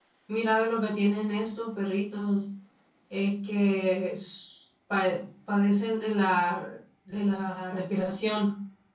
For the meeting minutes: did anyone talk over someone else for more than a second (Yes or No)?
No